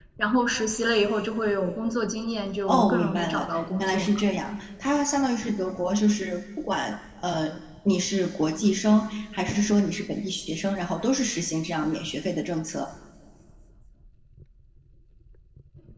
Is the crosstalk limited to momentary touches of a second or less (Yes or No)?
No